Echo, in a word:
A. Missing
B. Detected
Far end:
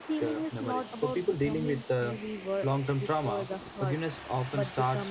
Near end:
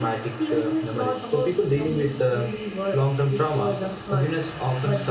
B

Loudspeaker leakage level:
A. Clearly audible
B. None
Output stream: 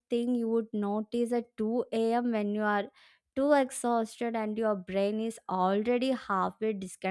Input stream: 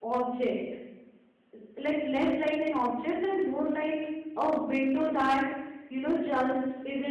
B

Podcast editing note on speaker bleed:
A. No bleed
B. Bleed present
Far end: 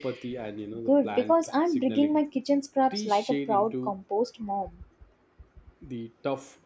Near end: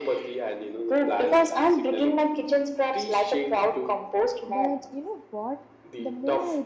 B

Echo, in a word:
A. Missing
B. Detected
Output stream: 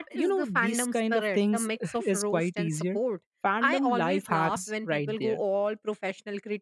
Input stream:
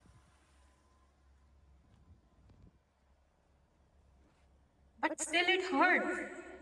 A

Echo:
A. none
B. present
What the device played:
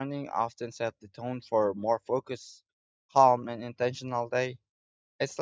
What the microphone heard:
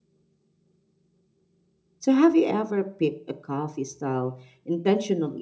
A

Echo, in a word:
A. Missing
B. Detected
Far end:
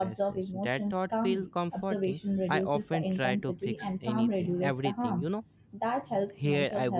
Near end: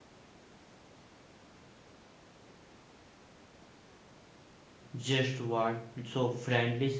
A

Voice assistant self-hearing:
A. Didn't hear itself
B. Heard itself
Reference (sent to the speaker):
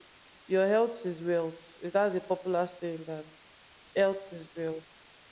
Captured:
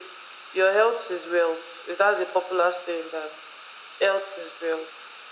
B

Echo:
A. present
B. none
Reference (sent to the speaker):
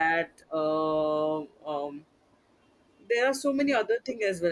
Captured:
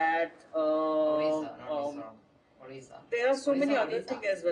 A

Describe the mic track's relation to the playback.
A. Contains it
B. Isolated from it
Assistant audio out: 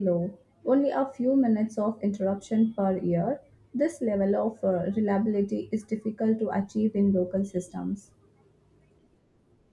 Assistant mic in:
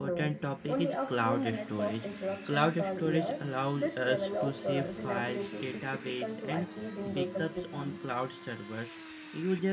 A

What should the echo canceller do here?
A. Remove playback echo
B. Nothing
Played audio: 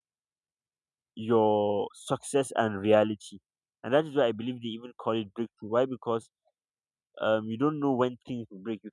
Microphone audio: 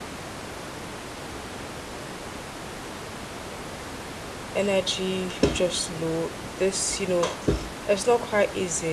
B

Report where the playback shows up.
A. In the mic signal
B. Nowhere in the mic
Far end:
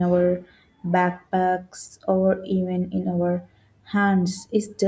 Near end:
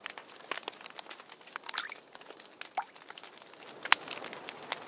B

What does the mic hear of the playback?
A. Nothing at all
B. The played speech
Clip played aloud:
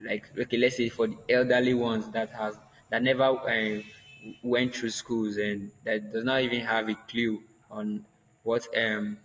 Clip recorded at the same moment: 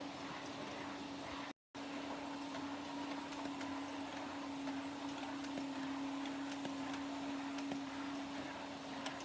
A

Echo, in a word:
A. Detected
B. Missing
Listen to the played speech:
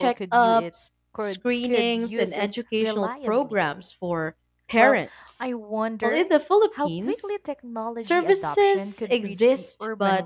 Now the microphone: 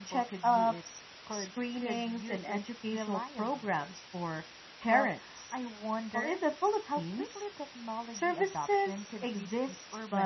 A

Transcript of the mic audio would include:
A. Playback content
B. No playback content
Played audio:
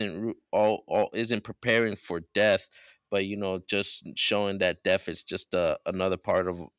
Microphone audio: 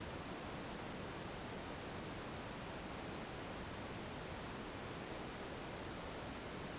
B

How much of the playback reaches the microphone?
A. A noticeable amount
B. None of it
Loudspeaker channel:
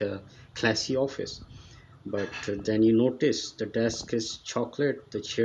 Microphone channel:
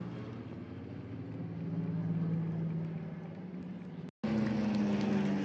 B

